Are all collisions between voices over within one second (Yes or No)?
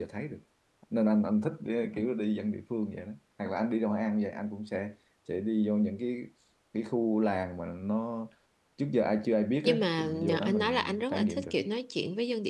No